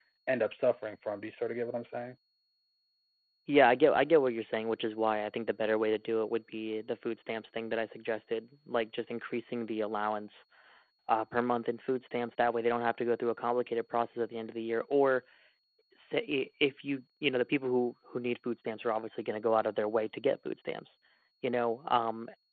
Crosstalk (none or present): none